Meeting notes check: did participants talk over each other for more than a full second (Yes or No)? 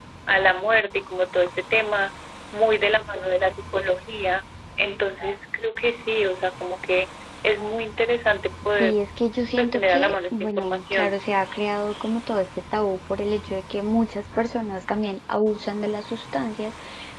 Yes